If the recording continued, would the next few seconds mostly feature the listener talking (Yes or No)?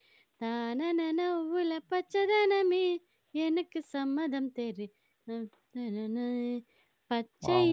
No